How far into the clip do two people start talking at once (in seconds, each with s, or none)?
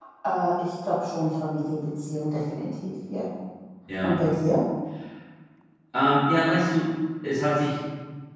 none